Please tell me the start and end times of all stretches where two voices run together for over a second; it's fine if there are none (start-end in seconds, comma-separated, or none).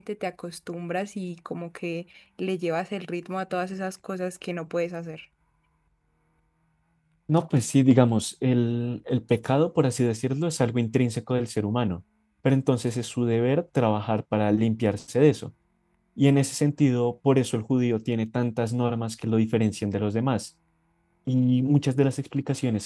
none